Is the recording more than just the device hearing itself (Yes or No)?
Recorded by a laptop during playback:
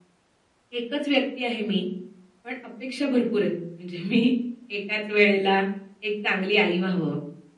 No